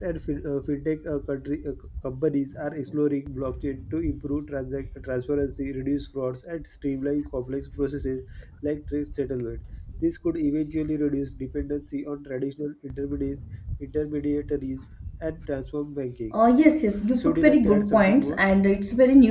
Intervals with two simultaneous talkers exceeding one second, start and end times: 17.2-18.4

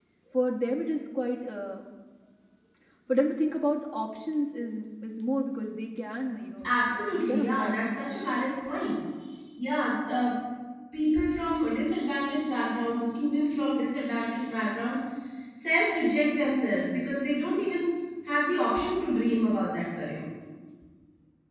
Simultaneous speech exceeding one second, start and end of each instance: 6.7-8.4

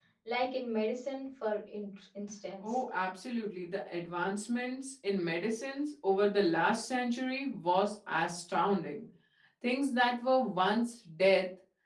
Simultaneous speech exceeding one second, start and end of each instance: none

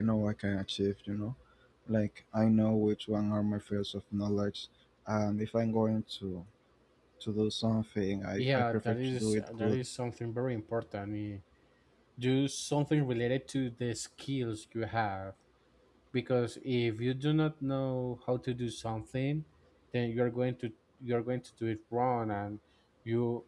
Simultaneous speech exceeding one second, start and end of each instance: 8.4-9.8

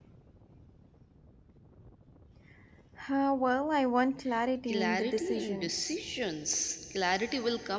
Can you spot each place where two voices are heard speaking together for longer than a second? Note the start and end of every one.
4.7-6.0

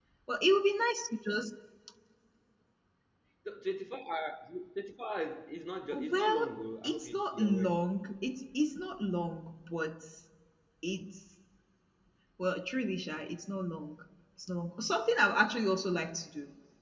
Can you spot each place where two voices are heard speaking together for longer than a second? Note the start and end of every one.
5.9-7.8

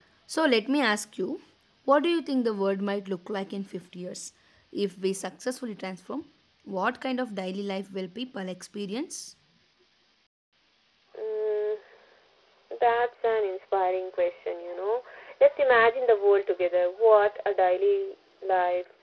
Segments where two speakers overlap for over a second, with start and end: none

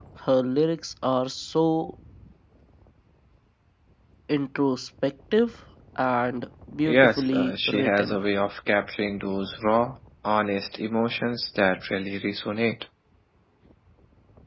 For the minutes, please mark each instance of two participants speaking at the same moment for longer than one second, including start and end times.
6.9-8.2

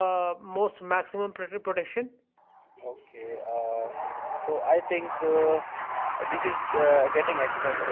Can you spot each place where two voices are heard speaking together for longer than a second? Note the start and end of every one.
none

